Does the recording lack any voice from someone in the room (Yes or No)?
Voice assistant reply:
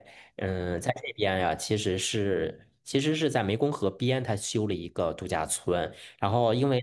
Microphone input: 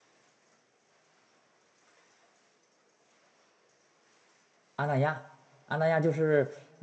No